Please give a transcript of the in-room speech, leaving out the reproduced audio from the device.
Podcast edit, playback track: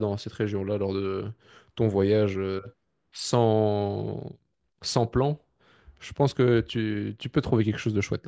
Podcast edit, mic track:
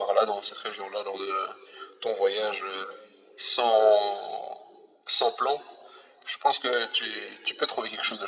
none

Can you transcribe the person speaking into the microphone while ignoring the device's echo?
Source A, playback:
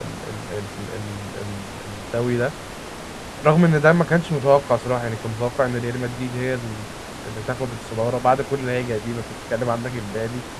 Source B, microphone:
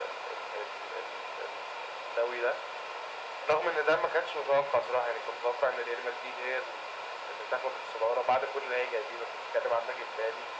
none

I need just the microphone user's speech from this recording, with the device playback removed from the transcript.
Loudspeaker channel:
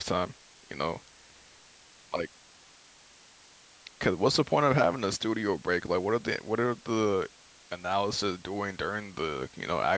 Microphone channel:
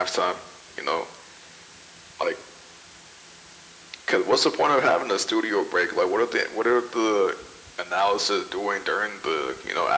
none

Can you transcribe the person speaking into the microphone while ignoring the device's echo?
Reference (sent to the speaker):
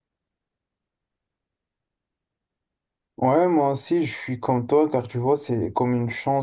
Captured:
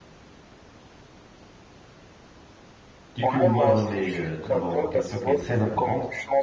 Du coup, moi, j'en ai euh, tout d'abord une question qui est très importante.

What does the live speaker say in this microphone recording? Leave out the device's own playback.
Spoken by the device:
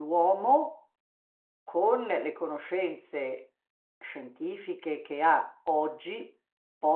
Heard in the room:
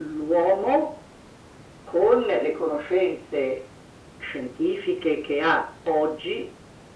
none

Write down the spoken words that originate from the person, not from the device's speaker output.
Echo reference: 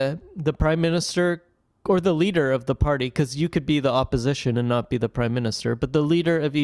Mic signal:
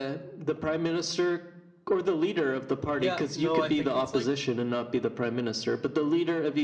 yeah no i think it's like

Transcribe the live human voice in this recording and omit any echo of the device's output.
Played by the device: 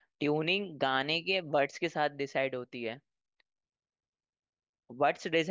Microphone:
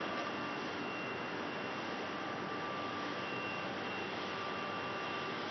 none

